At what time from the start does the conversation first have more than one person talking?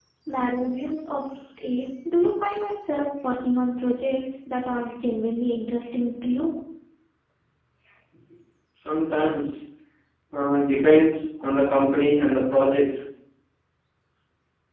none

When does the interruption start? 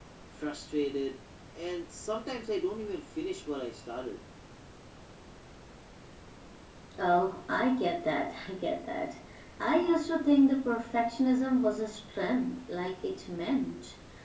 none

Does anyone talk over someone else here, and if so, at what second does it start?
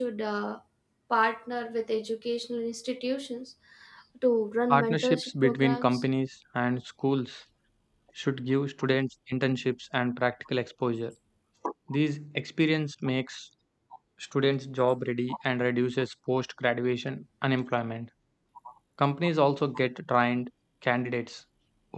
4.7 s

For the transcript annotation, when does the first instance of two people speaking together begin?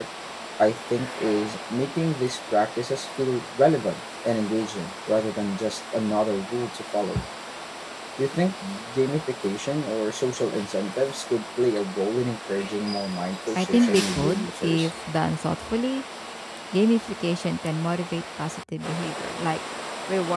13.6 s

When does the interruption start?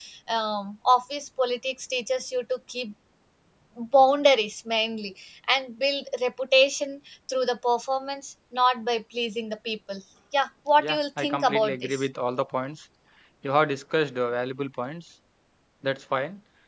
10.8 s

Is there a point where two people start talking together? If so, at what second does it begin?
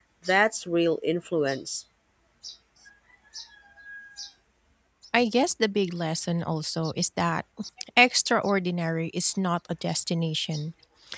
none

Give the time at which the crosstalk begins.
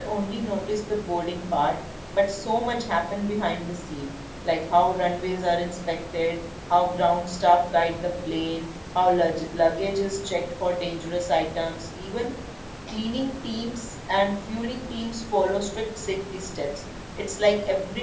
none

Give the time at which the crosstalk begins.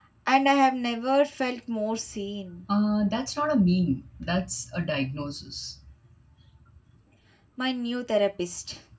none

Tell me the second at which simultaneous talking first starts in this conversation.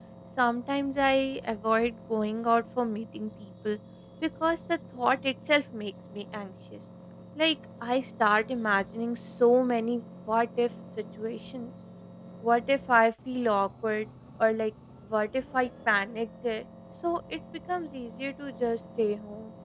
none

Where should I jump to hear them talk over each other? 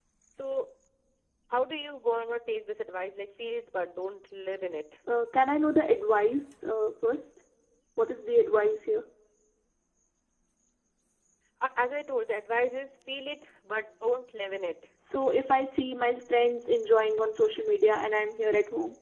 none

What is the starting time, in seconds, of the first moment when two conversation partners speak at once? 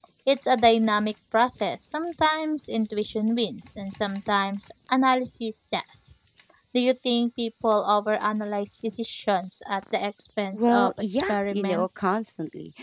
10.5 s

